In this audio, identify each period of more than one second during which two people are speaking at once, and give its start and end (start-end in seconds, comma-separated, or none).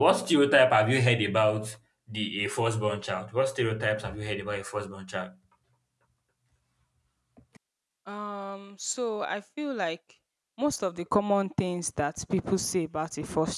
none